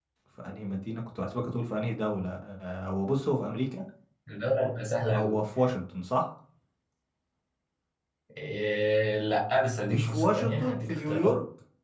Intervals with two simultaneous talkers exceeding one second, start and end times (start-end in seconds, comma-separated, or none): 9.9-11.3